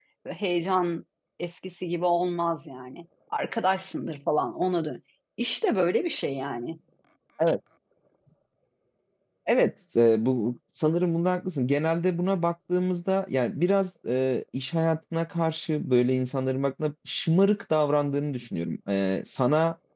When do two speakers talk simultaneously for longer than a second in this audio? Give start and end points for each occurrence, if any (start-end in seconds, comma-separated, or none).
none